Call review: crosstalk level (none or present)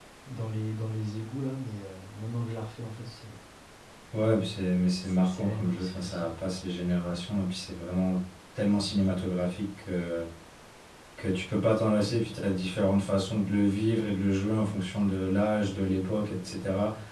present